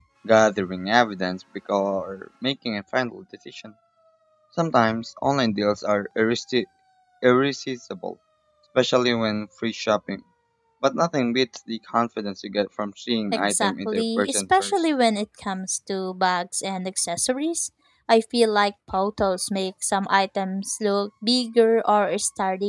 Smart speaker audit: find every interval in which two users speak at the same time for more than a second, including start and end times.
13.3-14.7

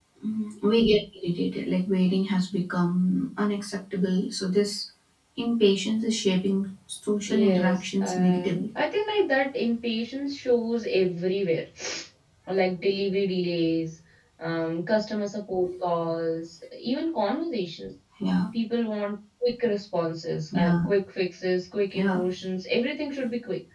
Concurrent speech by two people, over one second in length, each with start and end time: 7.3-8.6

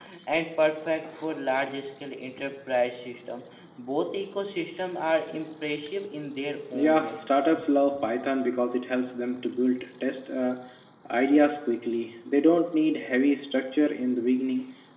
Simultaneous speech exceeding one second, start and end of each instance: none

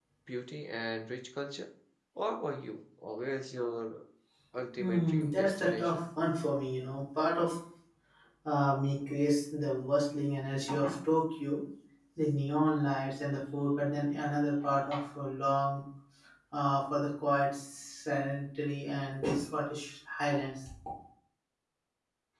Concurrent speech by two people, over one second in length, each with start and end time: 4.8-6.0

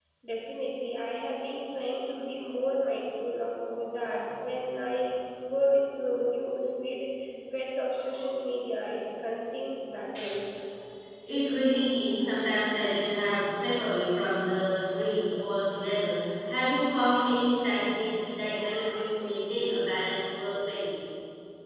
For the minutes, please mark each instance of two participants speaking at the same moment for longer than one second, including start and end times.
none

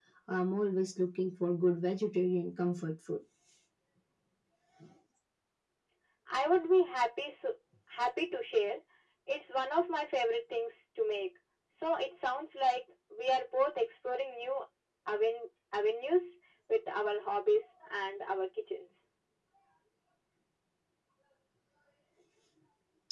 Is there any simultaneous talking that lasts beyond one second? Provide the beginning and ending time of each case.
none

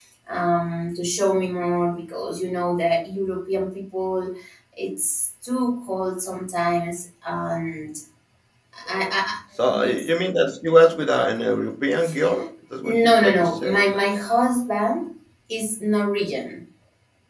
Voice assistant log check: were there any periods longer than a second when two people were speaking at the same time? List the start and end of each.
12.8-14.2

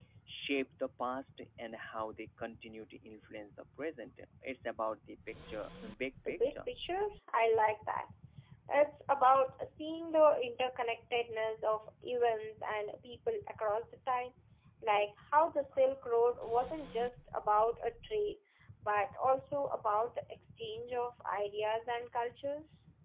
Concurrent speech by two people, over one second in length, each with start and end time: none

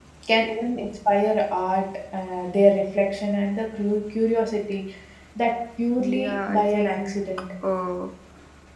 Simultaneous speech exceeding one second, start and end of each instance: 5.9-7.2

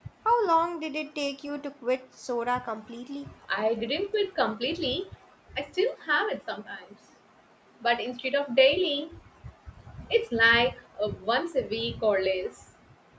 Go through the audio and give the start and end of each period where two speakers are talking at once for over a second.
none

